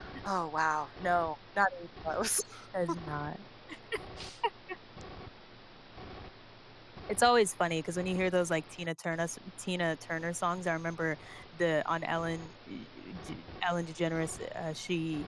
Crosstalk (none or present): none